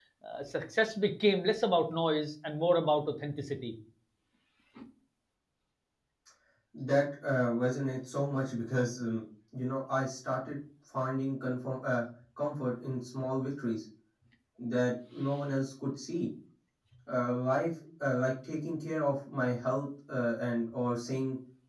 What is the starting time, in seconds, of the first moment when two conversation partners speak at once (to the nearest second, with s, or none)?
none